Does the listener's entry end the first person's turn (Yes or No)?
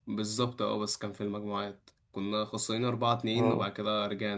No